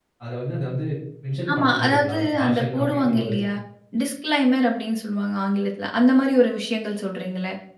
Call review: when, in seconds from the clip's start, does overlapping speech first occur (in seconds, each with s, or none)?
1.5 s